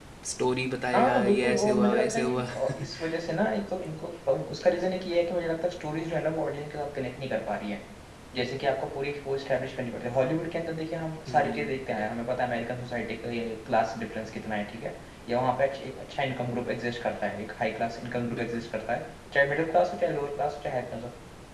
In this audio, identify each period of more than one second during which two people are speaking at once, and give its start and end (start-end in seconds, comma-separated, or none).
0.9-2.4